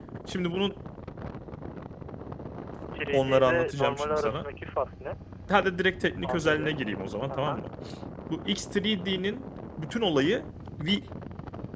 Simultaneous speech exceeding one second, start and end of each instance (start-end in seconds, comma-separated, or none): 3.1-4.4